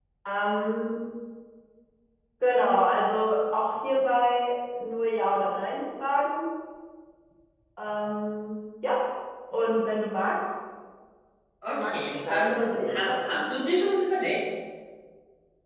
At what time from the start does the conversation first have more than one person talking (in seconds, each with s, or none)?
11.7 s